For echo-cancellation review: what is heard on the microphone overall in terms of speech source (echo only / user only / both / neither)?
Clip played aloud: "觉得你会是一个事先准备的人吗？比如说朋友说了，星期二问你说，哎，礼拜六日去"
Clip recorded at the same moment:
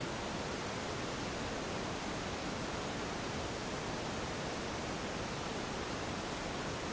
neither